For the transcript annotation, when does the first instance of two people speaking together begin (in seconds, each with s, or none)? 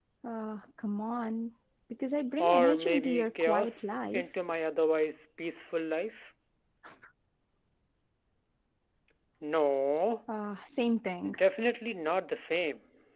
2.4 s